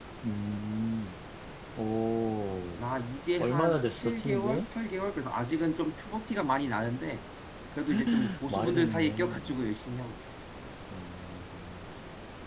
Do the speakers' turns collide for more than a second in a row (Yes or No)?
Yes